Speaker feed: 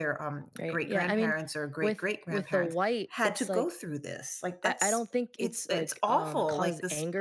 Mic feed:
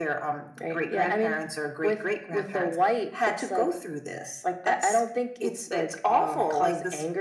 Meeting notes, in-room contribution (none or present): none